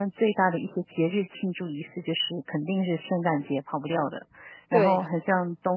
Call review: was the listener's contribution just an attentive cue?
Yes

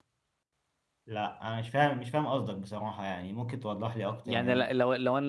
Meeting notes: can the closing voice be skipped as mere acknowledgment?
No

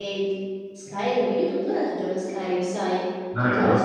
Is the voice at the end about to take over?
No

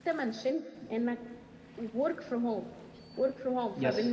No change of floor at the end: Yes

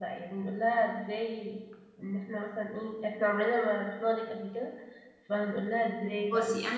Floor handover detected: Yes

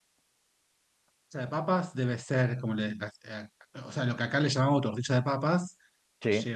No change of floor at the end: Yes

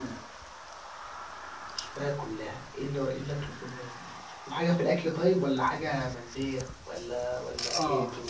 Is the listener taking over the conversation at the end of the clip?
Yes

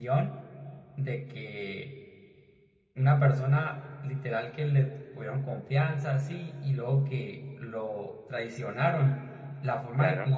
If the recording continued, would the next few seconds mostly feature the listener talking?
No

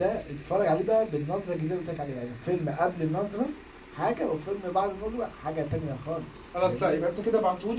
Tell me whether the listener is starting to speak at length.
Yes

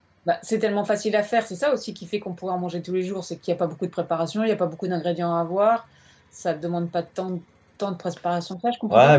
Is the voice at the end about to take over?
Yes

